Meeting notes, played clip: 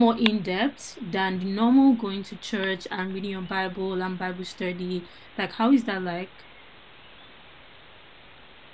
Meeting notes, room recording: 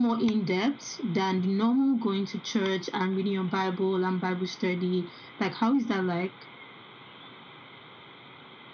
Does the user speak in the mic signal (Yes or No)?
No